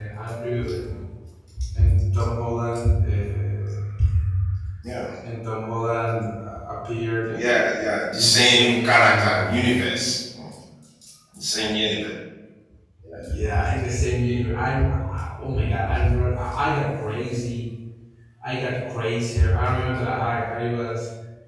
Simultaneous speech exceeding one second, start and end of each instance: 8.2-9.6

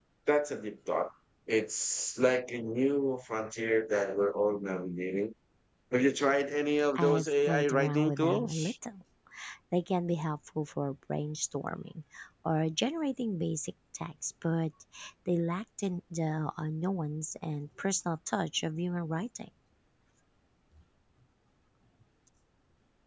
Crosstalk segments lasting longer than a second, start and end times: 7.0-8.7

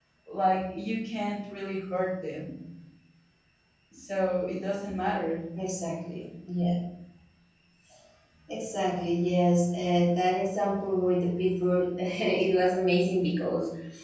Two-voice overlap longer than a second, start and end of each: none

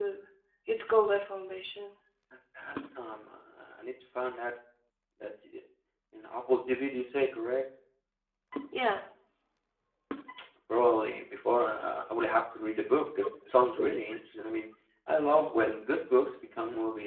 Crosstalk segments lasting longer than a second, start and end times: none

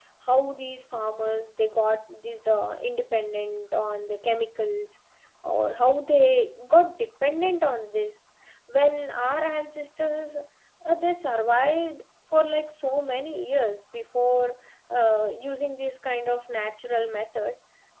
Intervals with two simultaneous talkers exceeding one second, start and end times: none

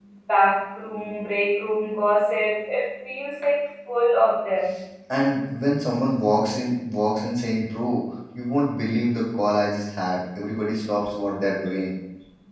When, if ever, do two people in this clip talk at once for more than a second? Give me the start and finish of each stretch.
none

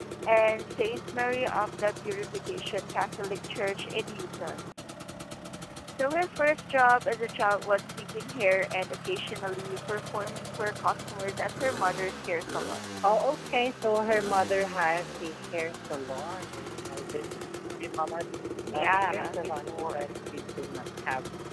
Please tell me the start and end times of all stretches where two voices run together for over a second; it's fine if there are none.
18.7-20.1

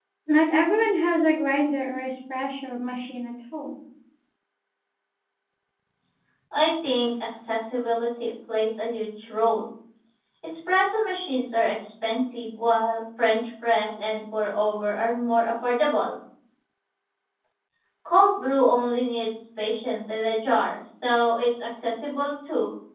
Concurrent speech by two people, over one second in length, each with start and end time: none

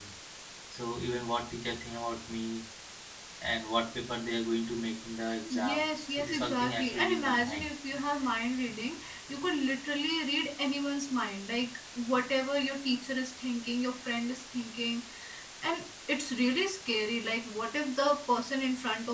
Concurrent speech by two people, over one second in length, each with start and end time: 5.5-7.6

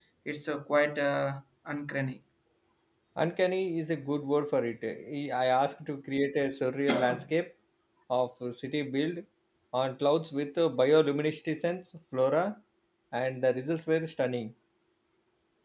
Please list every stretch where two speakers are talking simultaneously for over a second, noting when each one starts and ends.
none

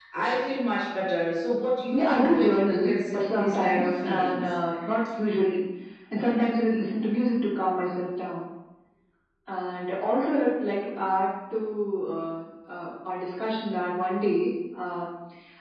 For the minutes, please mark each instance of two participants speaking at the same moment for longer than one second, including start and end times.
1.9-4.4

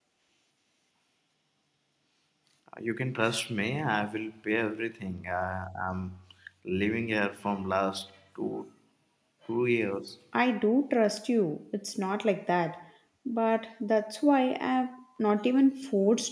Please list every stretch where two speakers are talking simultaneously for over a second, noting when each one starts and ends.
none

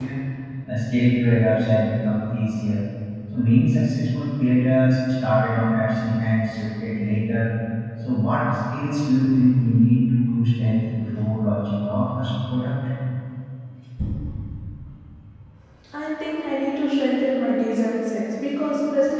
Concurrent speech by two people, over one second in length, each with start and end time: none

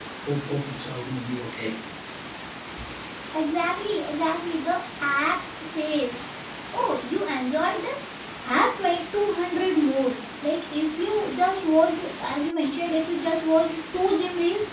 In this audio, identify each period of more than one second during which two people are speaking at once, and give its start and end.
none

